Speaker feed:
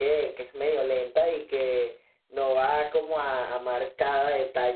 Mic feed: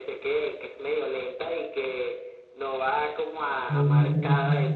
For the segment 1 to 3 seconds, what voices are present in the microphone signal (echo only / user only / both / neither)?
echo only